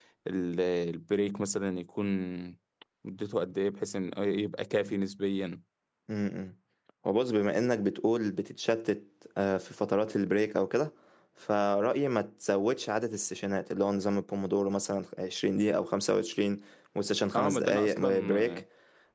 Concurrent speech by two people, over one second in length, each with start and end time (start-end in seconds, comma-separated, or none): 17.3-18.6